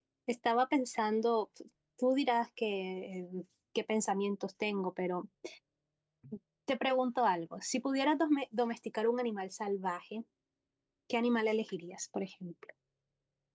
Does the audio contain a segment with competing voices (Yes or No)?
No